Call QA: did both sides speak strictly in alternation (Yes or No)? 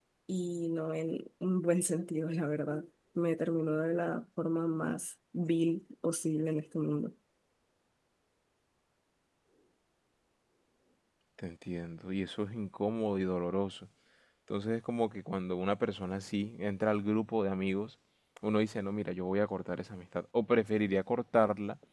Yes